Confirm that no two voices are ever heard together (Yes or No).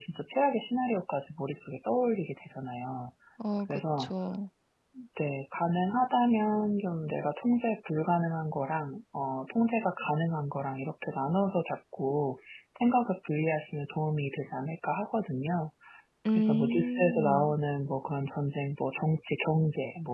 No